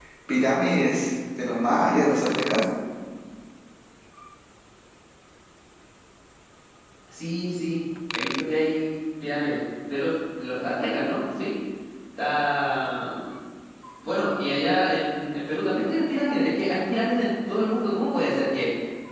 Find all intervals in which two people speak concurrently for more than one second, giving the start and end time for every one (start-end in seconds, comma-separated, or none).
none